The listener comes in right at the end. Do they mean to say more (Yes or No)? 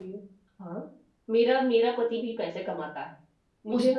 Yes